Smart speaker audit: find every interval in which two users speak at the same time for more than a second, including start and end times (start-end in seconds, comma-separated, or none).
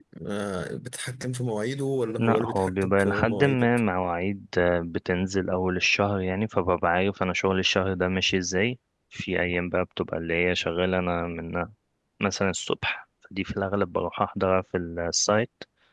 2.2-3.7